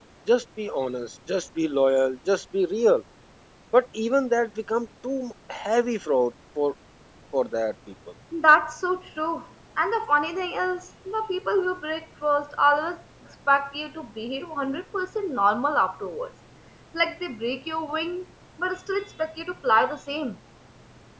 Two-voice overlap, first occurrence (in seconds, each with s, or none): none